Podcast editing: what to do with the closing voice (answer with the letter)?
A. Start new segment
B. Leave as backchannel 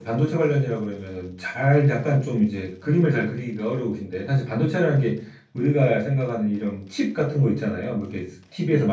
B